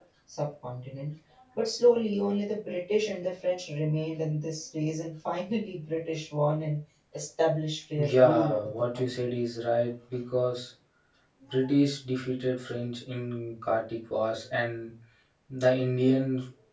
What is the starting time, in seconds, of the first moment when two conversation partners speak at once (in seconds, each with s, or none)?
8.0 s